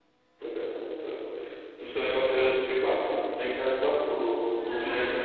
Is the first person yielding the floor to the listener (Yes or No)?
Yes